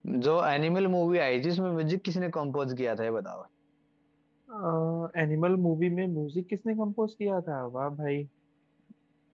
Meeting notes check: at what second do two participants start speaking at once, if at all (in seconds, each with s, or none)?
none